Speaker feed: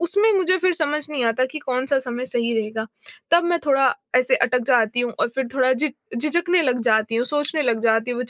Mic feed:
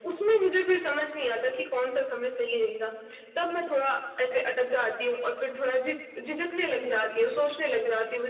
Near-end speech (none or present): none